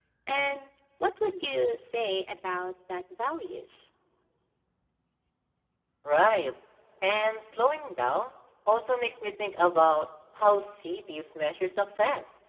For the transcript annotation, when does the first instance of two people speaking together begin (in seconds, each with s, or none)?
none